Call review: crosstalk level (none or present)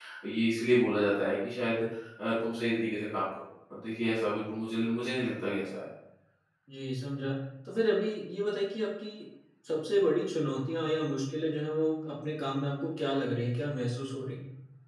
none